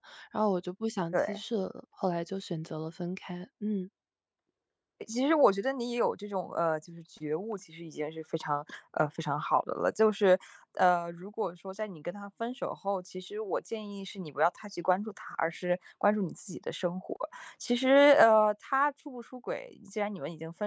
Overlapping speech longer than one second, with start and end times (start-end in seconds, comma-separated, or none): none